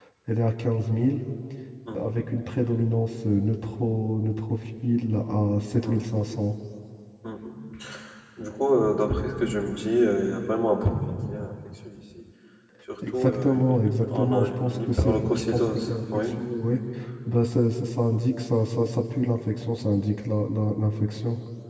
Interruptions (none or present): present